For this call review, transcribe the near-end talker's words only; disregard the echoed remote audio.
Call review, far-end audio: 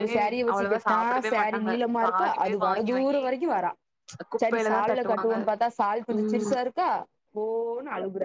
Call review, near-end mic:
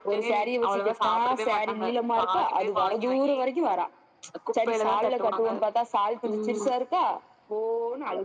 none

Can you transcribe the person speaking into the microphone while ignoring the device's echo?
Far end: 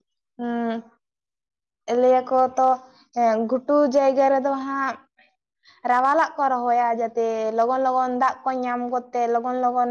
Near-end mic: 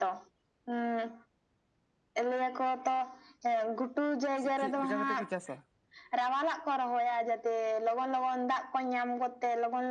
ᱥᱮ ᱪᱤᱜ ᱪᱮᱜ ᱞᱮᱠᱟ ᱠᱟᱛᱮᱫ ᱠᱚ ᱪᱟᱥᱟ

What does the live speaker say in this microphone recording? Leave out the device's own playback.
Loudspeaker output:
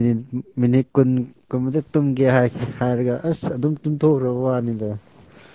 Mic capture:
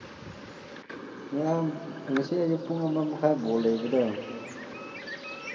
ꯉꯔꯥꯡ ꯉꯁꯤ ꯑꯌꯨꯛ ꯄꯨꯡ ꯑꯃ ꯃꯈꯥꯏ ꯕꯣꯜ ꯂꯩꯕꯗꯣ

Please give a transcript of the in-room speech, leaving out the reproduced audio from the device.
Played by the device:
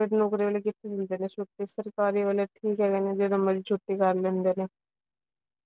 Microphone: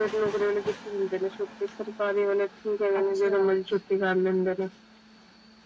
ਅੱਛਾ,

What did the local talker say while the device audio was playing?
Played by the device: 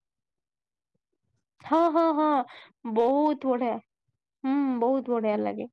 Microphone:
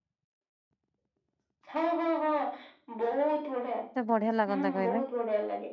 କେତେ ବଢିଆ ଲାଗନ୍ତା କହିଲେ

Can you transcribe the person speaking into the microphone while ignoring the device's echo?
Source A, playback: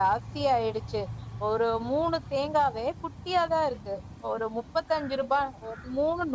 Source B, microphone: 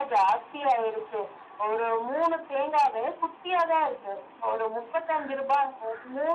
none

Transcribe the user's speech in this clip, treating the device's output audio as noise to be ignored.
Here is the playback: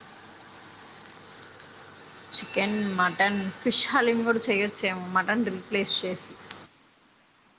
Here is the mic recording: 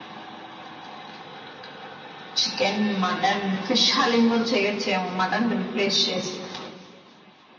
none

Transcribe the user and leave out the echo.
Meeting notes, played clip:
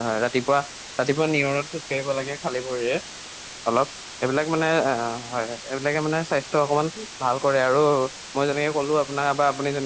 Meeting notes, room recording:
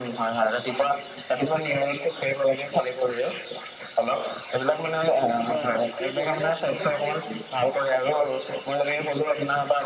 হয় হয় সেইটোৱে মানে তোমাৰ সেই

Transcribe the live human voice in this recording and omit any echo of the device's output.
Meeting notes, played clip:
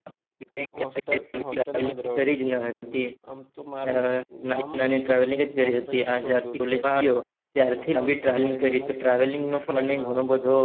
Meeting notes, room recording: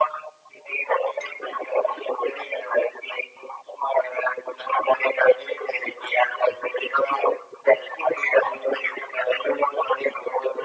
none

